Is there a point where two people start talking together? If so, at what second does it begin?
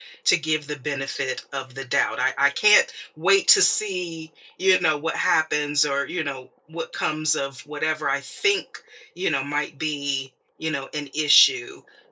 none

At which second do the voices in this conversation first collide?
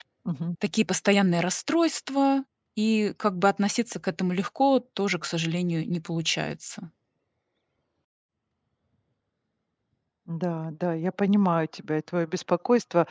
none

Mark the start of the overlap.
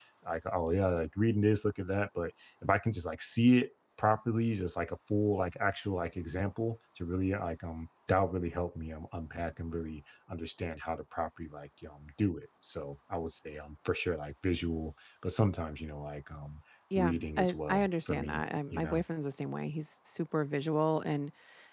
17 s

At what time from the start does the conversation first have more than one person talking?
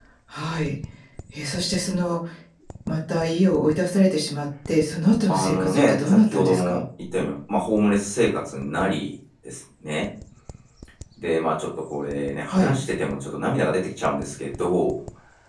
5 s

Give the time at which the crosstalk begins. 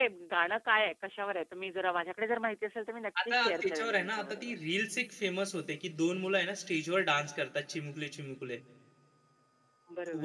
3 s

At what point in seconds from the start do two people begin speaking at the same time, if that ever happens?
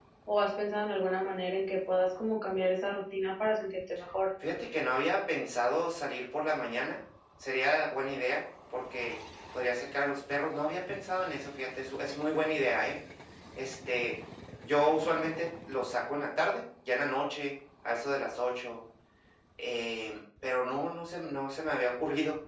none

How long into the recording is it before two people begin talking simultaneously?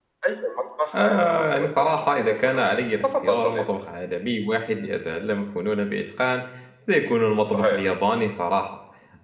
1 s

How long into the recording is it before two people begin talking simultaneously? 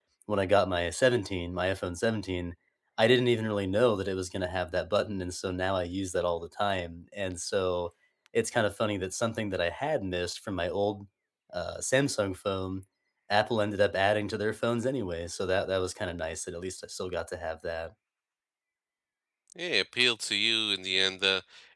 none

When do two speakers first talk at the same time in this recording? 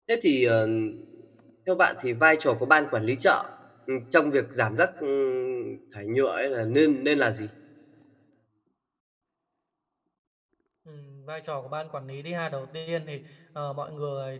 none

